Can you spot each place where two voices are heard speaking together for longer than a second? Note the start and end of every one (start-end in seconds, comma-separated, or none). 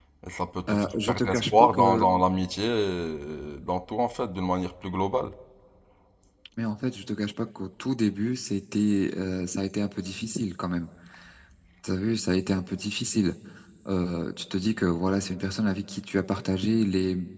0.7-2.0